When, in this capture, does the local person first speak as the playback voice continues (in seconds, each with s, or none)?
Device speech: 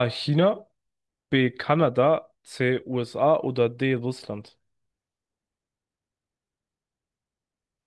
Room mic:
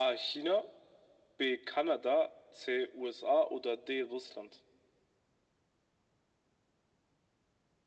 none